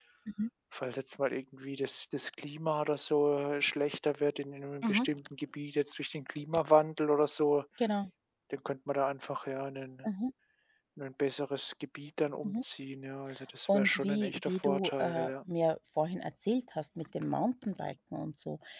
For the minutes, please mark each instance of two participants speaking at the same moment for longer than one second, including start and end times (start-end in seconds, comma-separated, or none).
13.7-15.3